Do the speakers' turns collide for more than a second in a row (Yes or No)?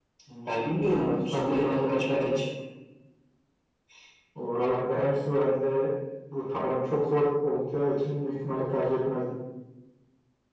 Yes